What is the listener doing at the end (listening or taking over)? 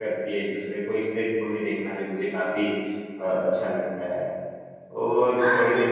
taking over